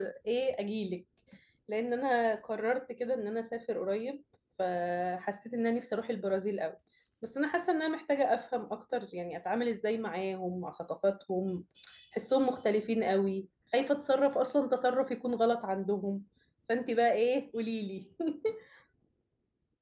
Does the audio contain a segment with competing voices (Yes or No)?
No